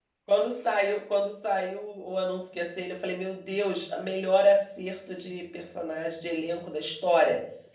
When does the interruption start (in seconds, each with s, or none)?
none